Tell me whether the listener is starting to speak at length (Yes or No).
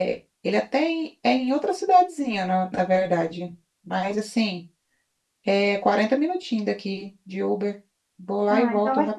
Yes